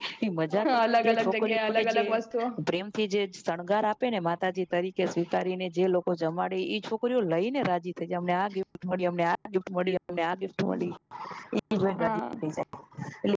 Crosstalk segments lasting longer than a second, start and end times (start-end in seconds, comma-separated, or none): 0.7-2.0